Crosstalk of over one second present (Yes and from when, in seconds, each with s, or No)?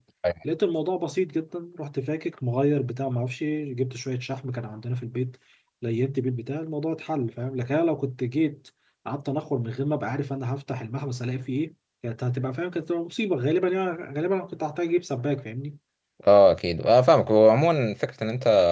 No